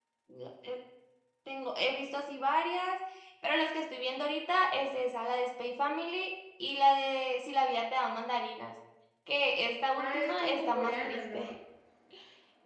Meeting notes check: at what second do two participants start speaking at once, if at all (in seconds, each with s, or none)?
10.0 s